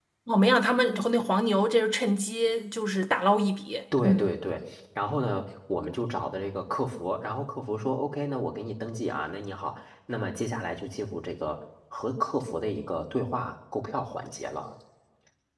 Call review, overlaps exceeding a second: none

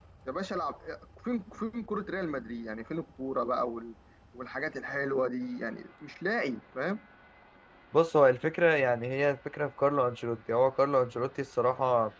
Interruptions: none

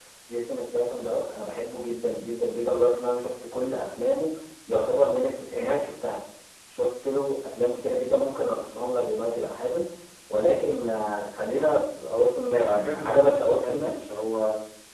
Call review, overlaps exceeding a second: present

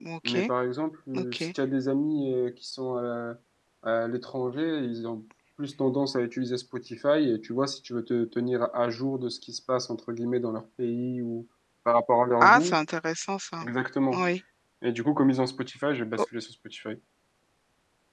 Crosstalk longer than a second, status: none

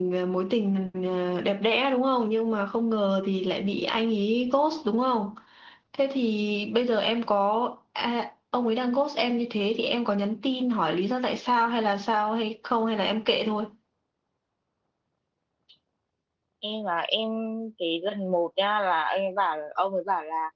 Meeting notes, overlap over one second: none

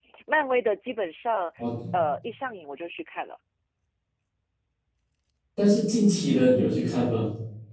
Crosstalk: none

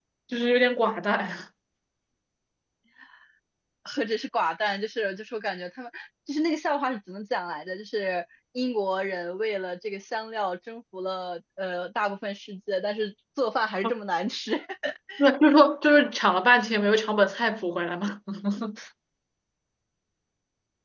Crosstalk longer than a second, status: none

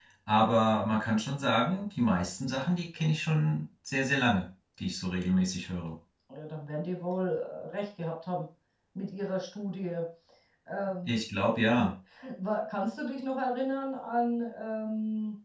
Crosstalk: none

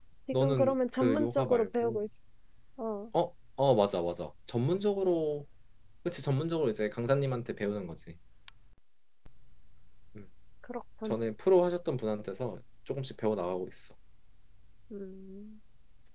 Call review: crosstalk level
present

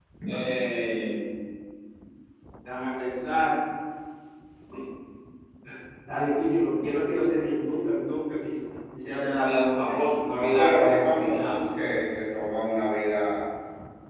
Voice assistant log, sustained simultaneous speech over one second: present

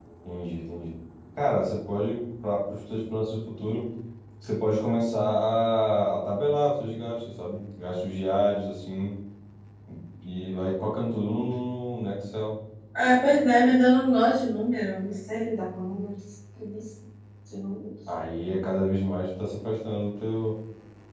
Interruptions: none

